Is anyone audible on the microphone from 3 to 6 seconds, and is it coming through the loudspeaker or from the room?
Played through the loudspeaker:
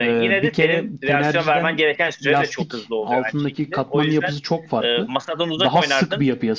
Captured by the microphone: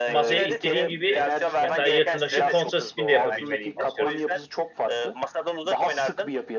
both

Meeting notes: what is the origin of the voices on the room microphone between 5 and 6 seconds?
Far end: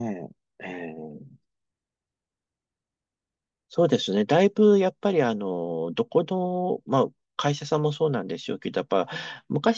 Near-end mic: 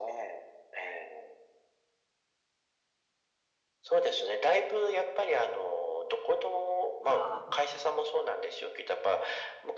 echo only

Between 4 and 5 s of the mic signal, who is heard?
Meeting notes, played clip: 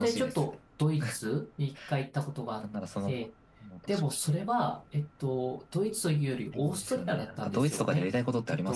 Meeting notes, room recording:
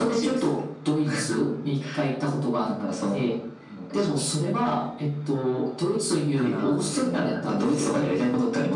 echo only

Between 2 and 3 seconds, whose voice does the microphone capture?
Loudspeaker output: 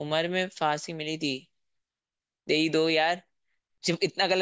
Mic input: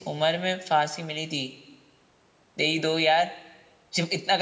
echo only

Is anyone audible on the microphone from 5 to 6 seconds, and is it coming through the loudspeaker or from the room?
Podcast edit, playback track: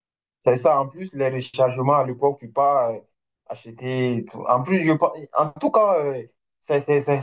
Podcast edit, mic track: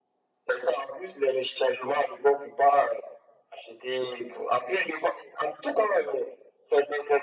echo only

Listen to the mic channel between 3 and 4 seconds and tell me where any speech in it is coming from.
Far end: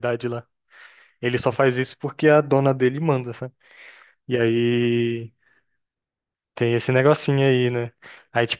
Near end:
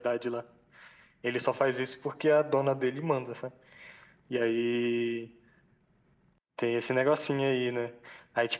echo only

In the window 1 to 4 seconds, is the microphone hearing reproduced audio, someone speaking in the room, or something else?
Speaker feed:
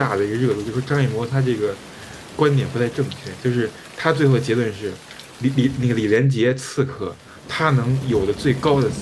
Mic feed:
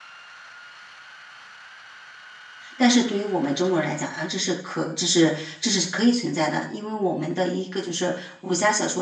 user only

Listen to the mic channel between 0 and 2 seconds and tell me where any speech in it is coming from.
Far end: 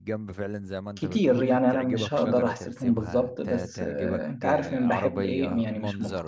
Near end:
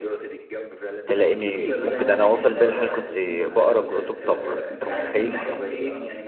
both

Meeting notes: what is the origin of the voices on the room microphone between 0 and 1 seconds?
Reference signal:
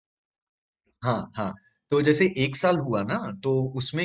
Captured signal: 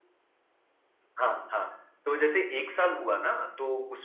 neither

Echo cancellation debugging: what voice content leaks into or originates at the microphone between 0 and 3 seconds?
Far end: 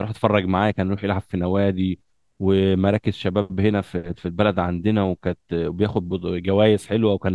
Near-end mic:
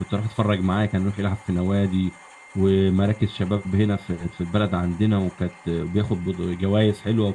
echo only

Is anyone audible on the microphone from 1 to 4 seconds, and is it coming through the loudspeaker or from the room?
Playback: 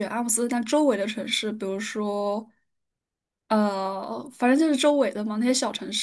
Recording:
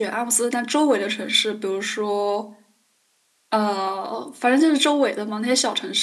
echo only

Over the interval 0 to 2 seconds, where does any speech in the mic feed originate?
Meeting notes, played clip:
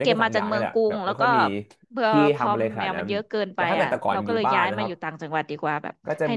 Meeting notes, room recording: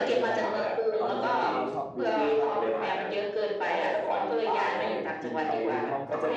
both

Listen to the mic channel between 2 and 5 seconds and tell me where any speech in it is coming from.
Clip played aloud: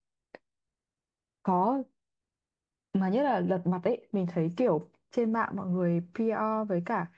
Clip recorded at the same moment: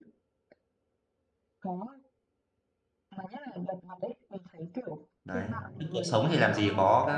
echo only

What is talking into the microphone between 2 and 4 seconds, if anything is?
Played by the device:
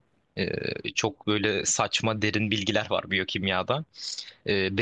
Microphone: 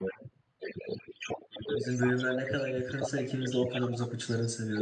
both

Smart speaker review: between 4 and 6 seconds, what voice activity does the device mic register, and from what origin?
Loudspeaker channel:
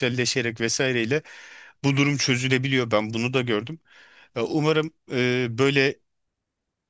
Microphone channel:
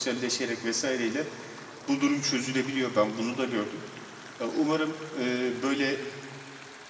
echo only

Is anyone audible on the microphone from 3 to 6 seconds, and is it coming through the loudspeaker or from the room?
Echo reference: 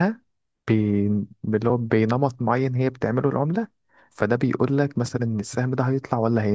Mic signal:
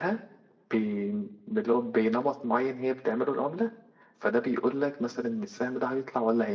echo only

